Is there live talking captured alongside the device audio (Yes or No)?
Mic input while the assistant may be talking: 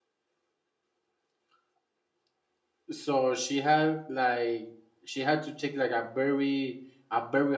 Yes